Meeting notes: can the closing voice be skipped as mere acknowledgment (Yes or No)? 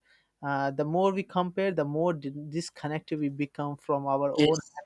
Yes